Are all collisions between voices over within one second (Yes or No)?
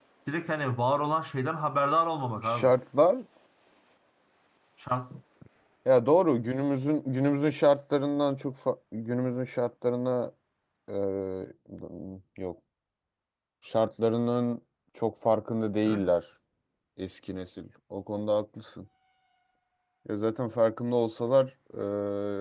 Yes